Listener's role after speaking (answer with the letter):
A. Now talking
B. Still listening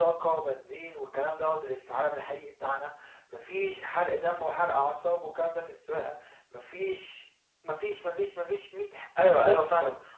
A